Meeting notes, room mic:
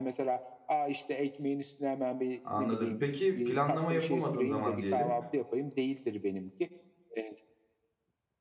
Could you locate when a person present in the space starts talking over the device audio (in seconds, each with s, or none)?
2.4 s